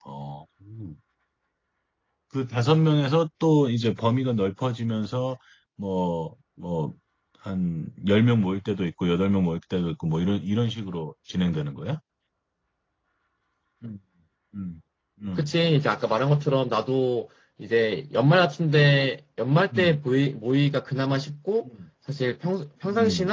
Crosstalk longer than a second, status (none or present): none